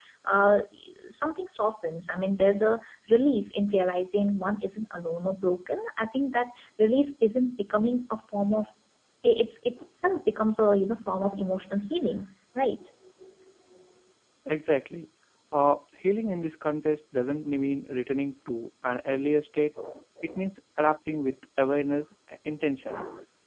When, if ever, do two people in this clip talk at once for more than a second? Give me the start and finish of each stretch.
none

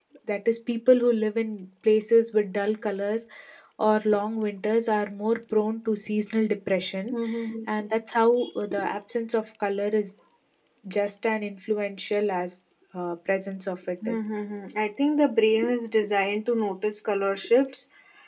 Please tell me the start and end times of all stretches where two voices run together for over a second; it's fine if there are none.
none

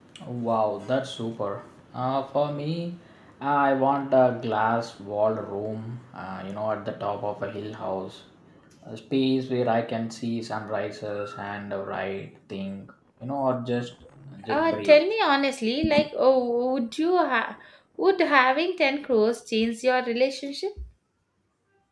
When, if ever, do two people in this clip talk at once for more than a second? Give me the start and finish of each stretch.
none

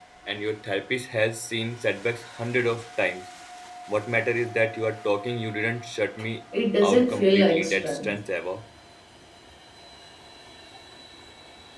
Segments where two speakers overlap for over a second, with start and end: 6.8-8.1

